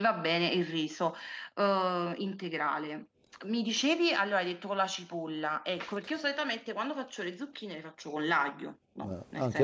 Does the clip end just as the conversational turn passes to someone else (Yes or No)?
Yes